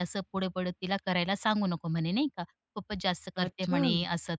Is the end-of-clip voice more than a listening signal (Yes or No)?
No